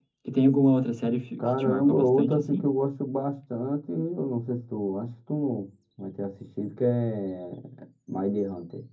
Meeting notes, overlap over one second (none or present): present